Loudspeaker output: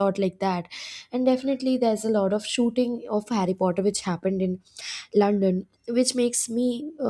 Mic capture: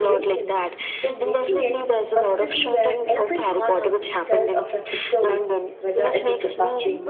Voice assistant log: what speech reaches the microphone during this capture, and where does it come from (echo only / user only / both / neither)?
both